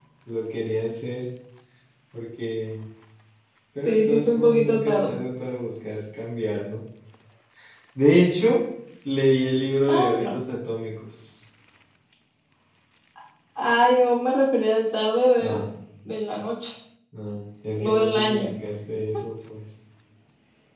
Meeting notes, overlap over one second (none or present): present